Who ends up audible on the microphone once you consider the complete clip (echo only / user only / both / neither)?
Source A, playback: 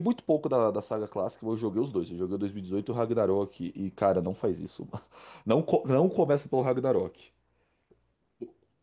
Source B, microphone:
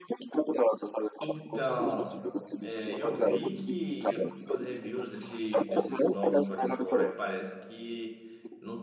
both